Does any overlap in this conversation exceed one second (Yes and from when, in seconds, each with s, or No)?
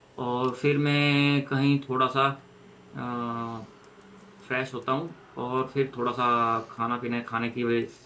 No